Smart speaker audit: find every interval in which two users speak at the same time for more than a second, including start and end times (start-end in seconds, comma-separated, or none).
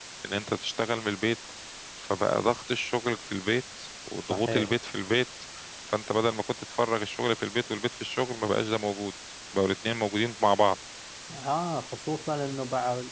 none